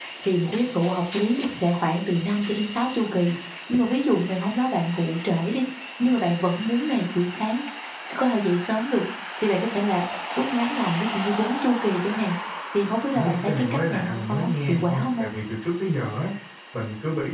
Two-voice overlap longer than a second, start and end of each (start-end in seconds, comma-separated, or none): 13.1-15.3